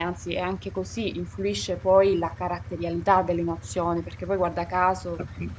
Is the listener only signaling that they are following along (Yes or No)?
Yes